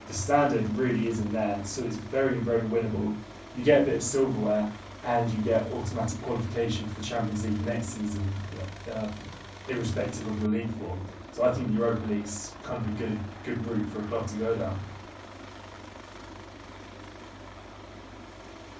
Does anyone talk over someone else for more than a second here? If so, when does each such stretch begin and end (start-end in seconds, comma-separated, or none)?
none